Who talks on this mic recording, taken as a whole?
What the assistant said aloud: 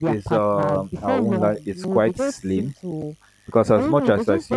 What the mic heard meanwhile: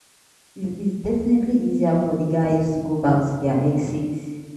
user only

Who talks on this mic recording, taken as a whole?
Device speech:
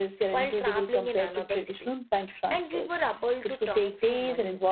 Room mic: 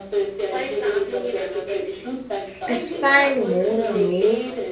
both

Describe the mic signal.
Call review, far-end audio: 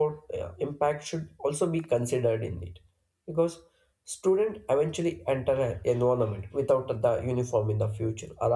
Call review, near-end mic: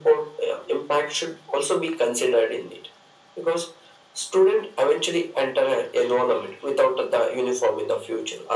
echo only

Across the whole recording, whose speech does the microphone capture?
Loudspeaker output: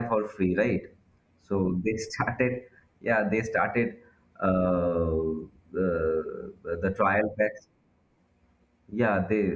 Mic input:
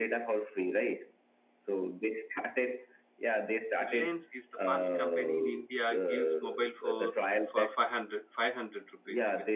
both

